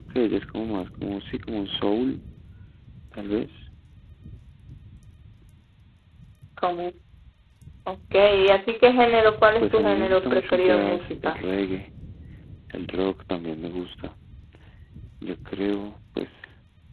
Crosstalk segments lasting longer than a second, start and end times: 9.6-11.4

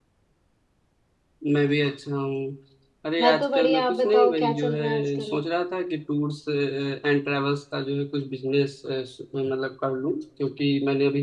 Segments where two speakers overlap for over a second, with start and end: 3.2-5.4

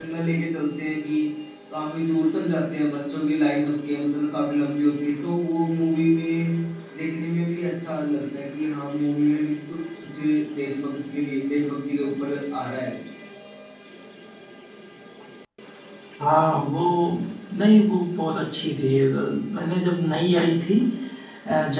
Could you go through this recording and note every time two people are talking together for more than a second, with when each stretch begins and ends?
none

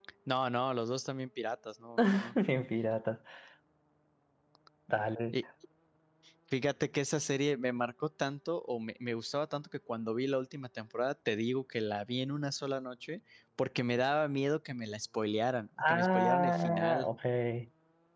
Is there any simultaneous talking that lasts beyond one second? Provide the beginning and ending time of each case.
15.8-17.1

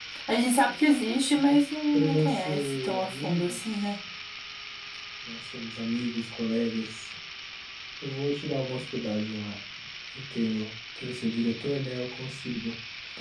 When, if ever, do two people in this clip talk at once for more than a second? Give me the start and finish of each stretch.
1.9-3.9

